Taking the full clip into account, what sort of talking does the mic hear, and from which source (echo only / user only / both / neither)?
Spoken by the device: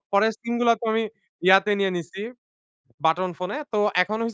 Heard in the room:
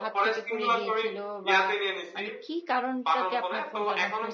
both